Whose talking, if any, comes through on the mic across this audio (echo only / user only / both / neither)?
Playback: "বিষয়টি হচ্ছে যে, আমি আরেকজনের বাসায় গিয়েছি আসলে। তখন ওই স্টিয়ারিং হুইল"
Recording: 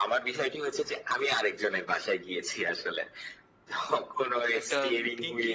both